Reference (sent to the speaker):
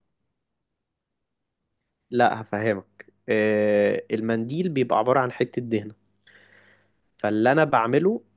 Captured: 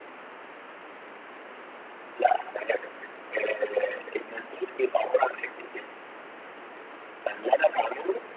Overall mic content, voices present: echo only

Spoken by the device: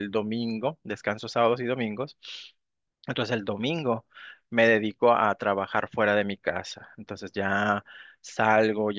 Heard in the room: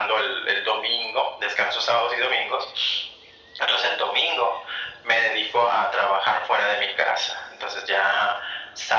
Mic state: echo only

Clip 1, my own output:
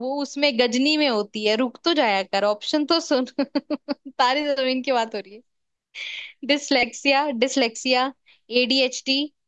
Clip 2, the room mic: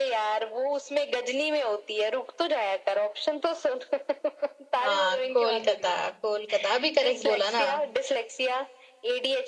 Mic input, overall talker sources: both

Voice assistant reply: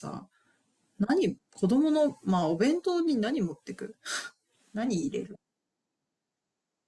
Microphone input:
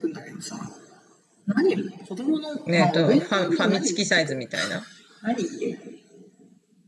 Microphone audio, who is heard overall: both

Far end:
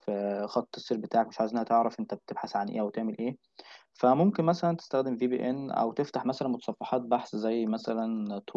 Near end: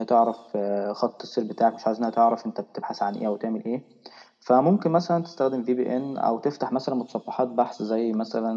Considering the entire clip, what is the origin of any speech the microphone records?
echo only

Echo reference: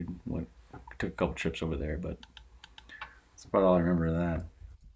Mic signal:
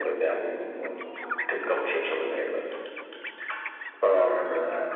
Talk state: echo only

